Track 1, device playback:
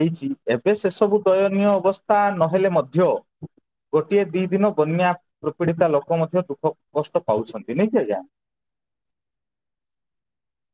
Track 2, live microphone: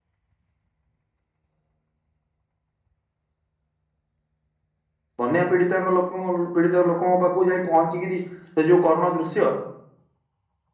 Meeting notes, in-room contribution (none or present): present